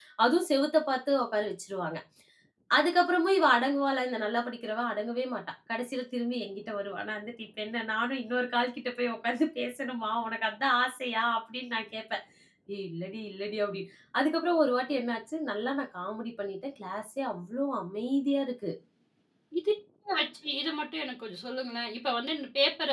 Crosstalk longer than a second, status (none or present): none